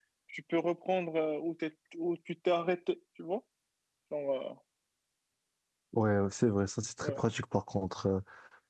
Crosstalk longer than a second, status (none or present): none